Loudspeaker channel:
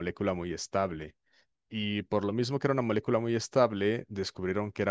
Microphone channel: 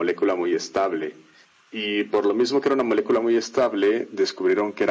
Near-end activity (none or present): none